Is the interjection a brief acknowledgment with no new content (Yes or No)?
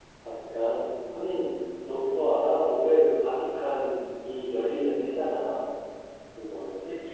Yes